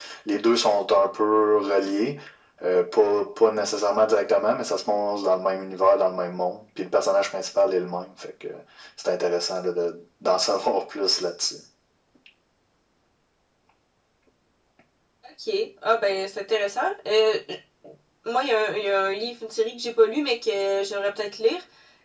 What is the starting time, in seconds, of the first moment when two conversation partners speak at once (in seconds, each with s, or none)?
none